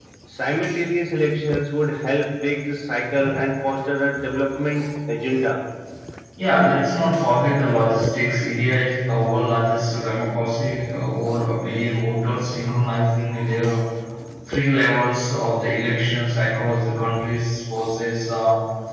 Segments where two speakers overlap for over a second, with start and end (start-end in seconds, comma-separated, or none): none